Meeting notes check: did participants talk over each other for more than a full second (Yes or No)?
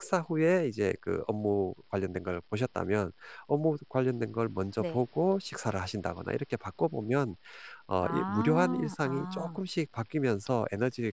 Yes